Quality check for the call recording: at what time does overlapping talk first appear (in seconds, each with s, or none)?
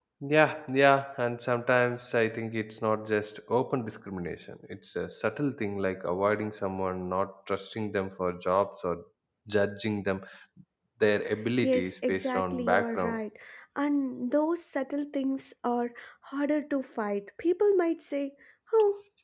11.6 s